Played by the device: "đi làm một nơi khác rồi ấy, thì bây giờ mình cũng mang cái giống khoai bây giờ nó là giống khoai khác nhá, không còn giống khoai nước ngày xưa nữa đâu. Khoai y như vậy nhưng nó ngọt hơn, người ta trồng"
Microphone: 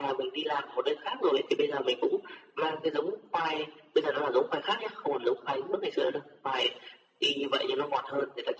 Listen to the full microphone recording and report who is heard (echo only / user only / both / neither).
echo only